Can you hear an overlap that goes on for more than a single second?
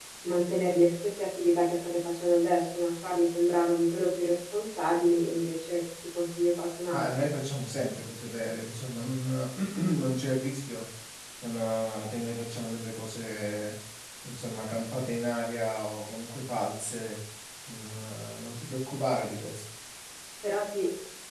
No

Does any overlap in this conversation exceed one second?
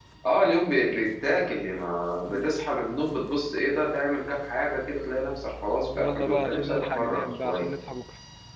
Yes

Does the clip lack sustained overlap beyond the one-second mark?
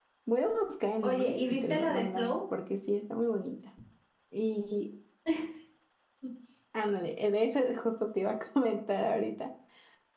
No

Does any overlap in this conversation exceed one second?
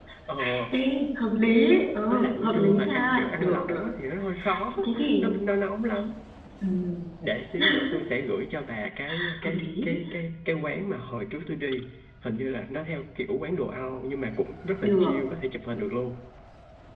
Yes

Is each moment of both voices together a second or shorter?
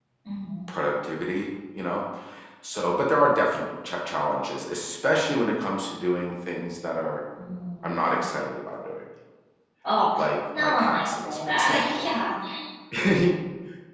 No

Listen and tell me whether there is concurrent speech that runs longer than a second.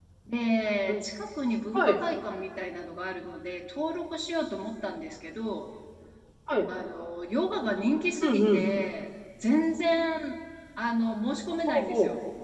No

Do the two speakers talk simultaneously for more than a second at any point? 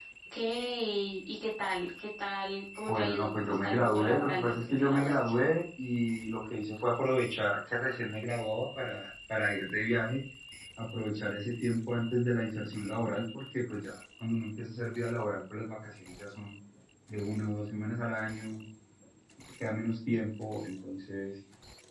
Yes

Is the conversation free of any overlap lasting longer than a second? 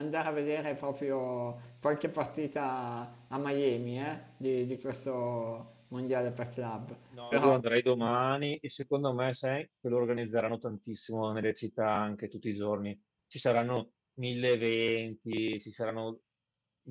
Yes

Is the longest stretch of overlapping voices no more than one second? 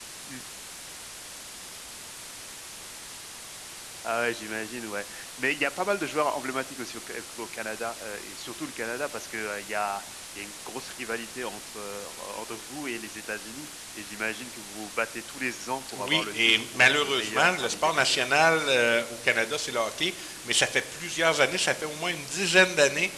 No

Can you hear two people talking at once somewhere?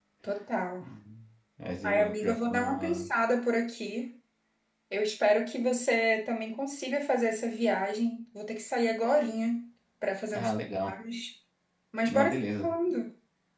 Yes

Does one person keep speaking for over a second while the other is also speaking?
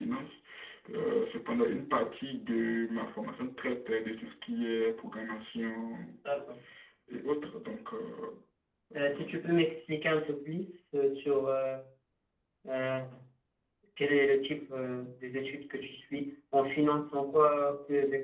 No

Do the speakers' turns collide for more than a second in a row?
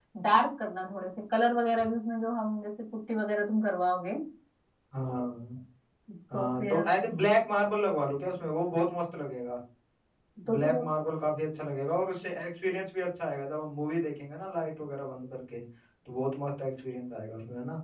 No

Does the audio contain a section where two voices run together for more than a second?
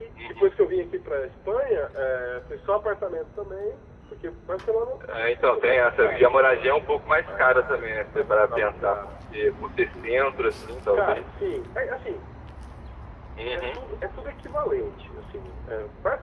Yes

